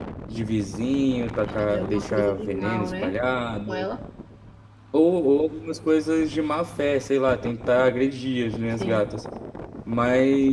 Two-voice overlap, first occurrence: 1.5 s

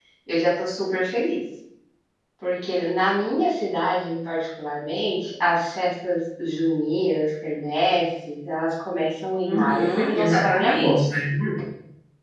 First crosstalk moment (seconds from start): 9.4 s

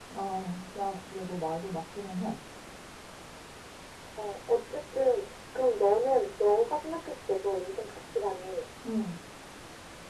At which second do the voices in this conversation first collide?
none

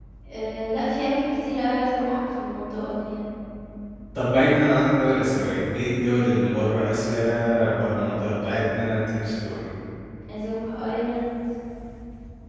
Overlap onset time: none

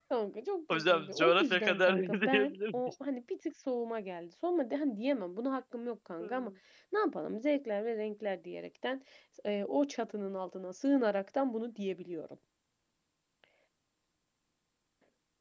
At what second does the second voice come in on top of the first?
0.7 s

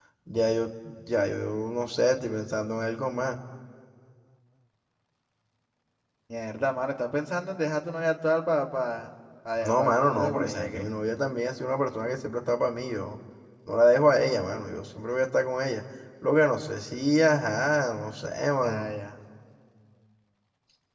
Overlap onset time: 9.6 s

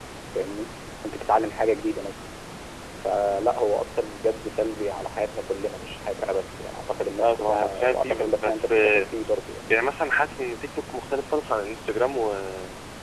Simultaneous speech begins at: 7.2 s

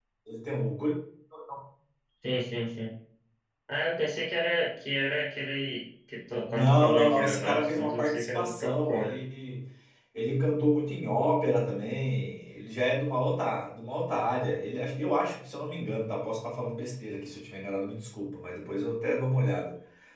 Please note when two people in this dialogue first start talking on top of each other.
6.5 s

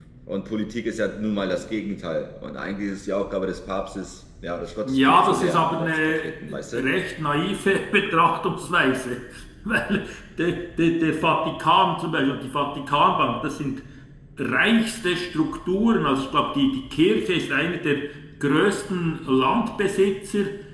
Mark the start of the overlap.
4.8 s

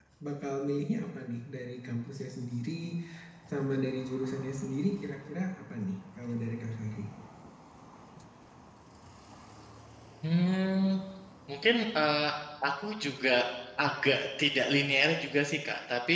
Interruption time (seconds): none

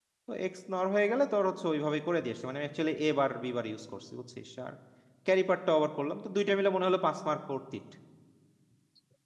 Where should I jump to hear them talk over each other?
none

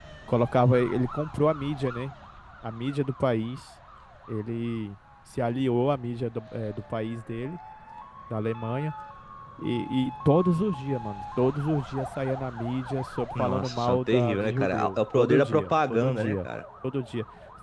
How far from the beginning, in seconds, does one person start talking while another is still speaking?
13.4 s

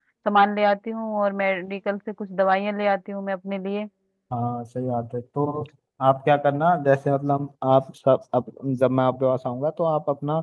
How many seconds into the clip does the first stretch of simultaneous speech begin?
none

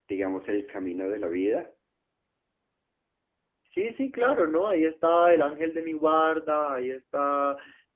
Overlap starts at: none

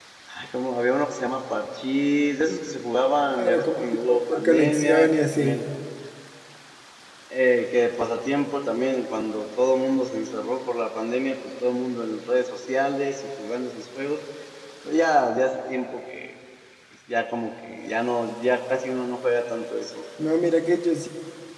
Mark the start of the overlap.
3.4 s

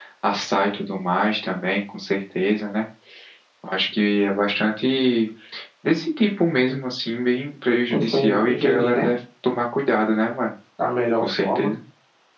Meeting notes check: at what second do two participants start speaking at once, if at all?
7.9 s

